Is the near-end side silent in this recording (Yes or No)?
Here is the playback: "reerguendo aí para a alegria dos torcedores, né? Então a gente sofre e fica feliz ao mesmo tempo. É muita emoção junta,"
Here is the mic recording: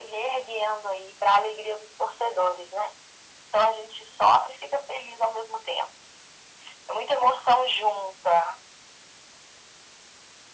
Yes